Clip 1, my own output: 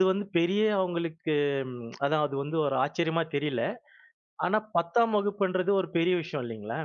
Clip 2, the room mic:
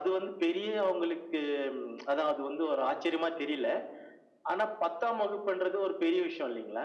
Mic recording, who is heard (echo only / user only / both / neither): echo only